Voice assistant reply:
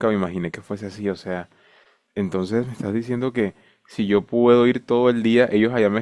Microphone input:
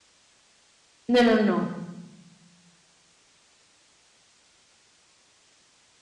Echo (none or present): none